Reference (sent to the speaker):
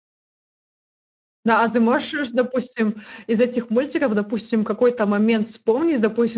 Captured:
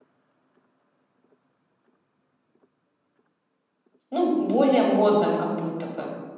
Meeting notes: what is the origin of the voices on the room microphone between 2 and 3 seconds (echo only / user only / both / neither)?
neither